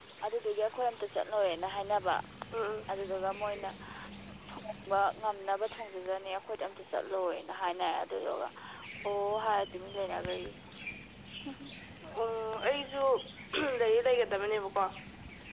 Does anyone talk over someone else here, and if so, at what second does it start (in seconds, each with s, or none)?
none